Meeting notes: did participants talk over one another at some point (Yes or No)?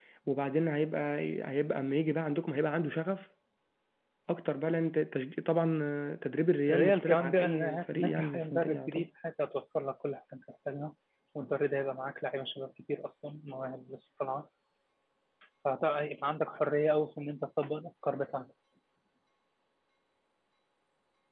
Yes